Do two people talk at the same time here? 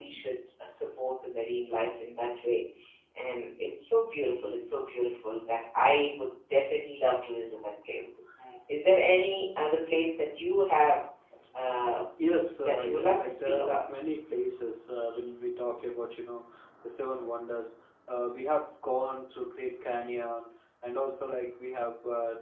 Yes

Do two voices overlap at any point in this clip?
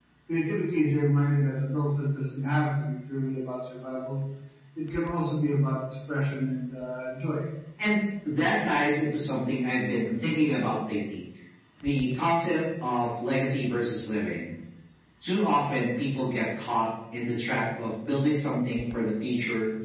No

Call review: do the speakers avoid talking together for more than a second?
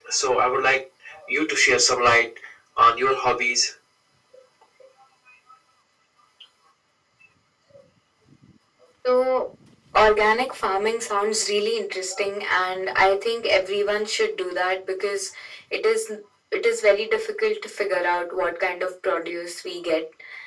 Yes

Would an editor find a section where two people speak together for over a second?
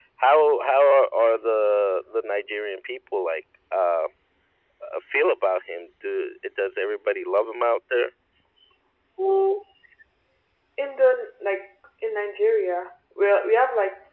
No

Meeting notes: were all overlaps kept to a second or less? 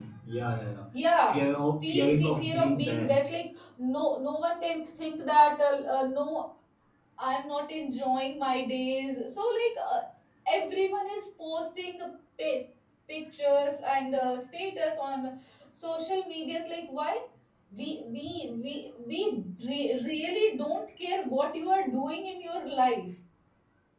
No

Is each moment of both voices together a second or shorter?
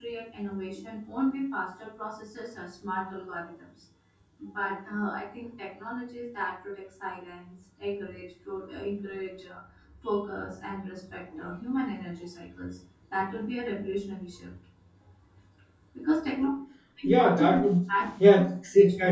Yes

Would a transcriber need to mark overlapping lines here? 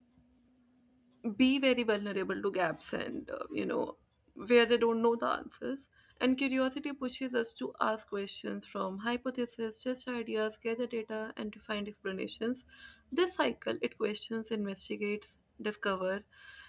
No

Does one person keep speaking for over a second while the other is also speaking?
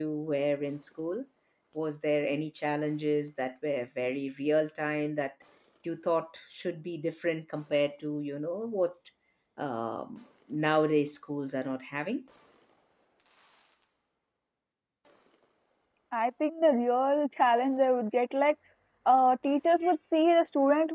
No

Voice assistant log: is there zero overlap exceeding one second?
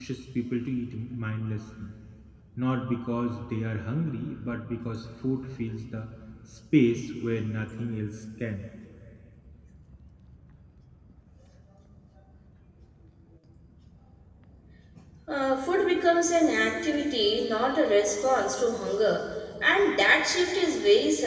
Yes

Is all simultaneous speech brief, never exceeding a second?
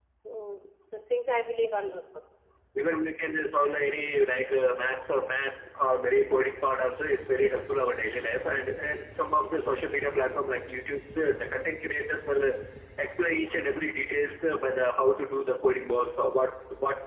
Yes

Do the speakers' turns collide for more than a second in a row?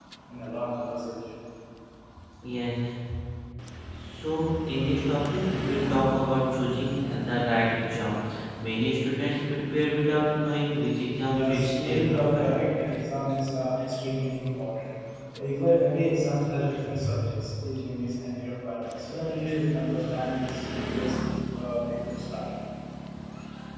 Yes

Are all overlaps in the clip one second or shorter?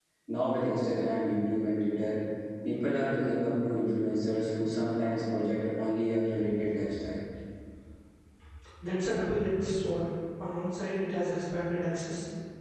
Yes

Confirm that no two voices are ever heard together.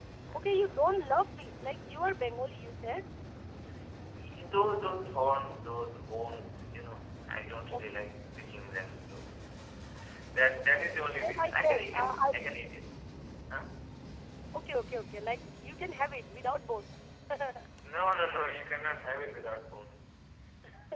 No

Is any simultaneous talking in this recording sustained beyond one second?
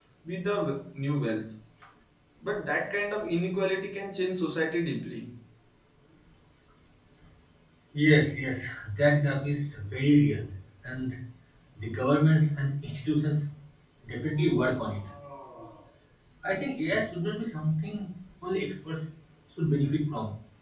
No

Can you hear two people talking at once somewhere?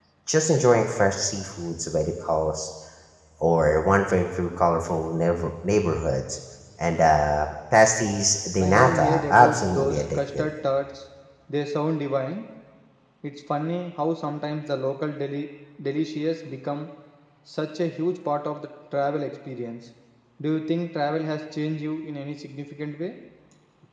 Yes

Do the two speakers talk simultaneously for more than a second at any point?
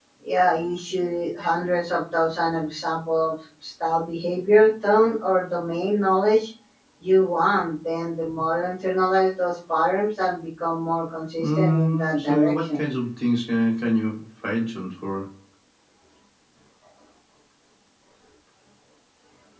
Yes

